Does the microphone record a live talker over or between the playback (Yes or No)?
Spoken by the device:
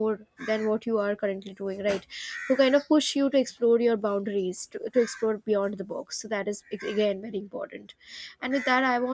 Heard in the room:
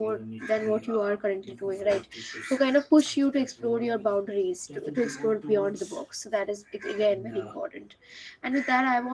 Yes